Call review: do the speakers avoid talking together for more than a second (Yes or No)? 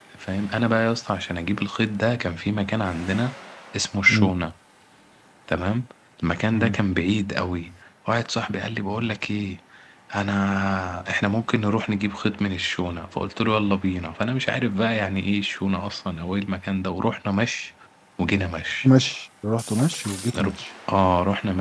Yes